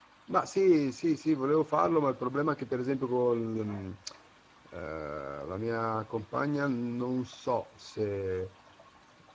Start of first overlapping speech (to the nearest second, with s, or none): none